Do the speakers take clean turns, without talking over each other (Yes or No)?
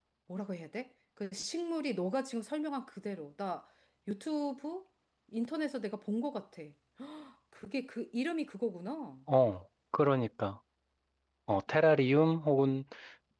Yes